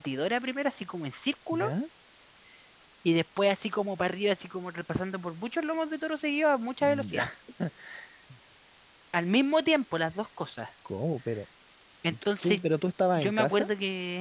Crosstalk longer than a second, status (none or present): none